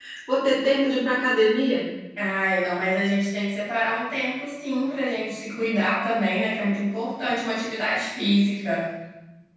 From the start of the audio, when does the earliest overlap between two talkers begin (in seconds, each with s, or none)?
none